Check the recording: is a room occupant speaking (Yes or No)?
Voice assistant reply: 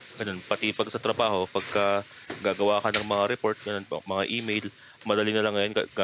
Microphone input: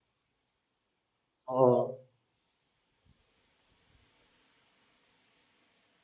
Yes